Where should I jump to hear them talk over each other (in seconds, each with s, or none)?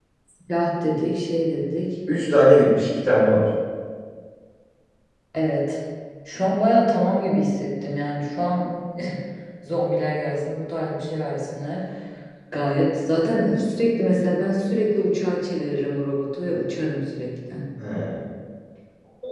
none